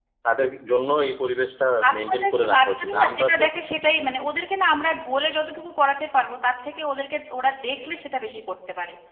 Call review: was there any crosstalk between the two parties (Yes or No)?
Yes